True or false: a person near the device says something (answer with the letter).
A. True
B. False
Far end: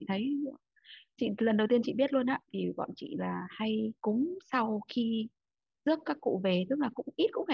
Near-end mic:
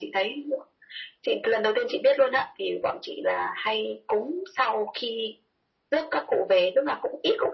B